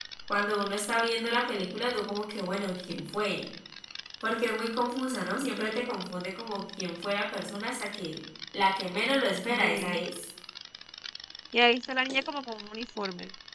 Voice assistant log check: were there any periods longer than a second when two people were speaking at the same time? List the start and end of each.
none

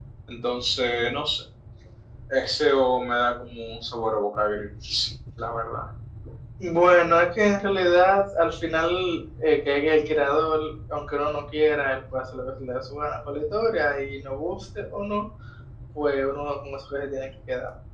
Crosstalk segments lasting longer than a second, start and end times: none

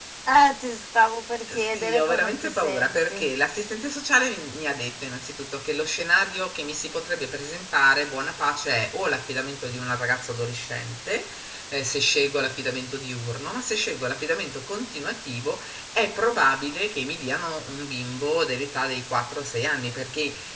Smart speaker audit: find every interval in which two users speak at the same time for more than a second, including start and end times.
1.6-3.2

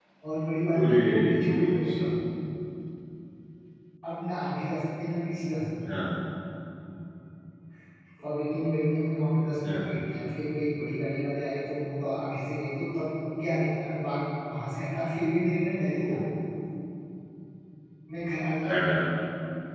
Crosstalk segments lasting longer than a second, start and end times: 0.8-2.0

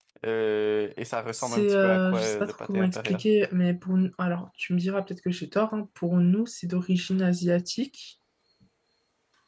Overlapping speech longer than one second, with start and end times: 1.3-3.2

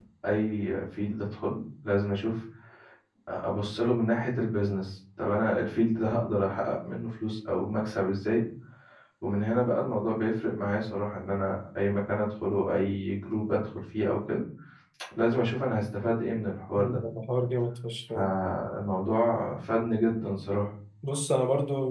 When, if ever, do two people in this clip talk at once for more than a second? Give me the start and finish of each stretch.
none

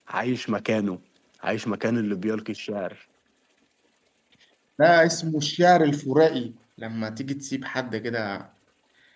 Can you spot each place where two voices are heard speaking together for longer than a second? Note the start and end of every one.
none

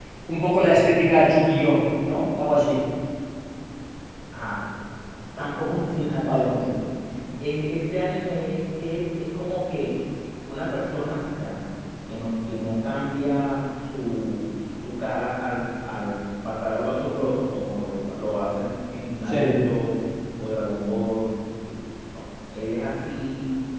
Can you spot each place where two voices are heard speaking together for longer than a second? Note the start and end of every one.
none

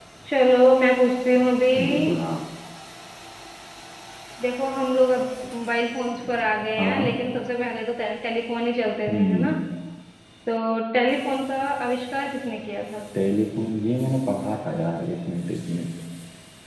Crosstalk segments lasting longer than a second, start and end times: none

